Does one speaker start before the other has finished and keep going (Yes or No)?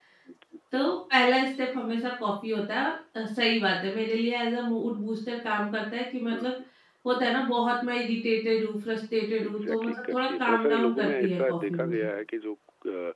Yes